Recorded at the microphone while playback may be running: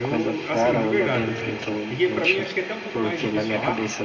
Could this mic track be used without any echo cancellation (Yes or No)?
No